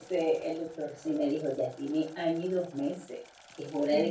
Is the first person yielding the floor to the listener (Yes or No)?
No